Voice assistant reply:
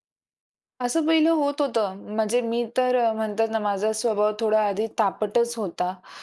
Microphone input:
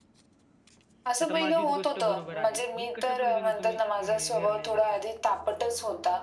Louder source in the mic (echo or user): echo